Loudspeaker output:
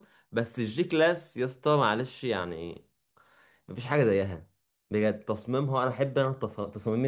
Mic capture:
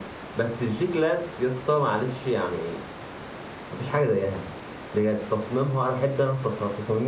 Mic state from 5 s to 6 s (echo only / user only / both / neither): echo only